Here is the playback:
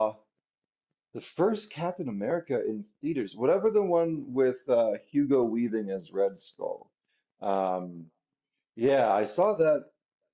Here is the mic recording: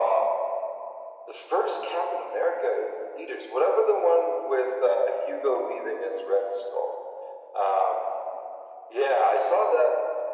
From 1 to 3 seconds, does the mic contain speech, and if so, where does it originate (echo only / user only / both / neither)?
echo only